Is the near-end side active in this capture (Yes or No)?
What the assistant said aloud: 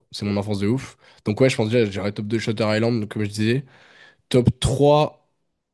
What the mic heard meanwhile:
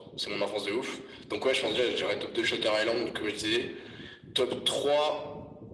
No